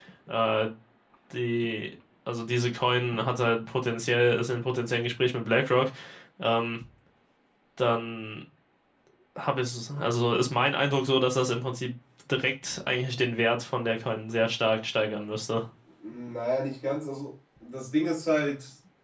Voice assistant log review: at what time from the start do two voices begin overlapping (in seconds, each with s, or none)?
none